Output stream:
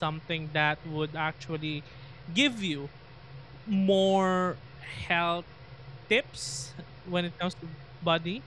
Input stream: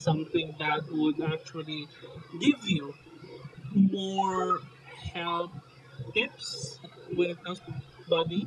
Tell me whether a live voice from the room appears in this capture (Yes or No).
No